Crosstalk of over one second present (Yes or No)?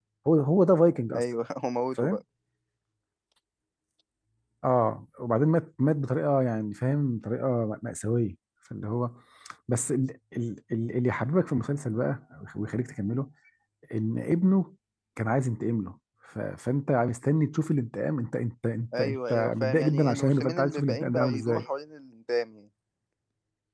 Yes